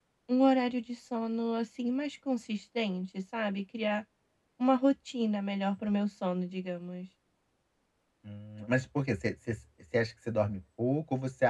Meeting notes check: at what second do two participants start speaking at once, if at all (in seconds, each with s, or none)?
none